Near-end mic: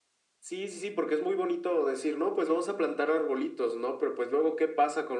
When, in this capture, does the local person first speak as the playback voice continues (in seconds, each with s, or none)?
none